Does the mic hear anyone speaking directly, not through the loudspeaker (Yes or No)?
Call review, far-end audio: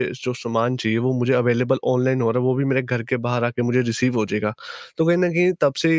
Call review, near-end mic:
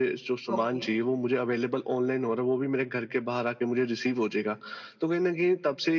Yes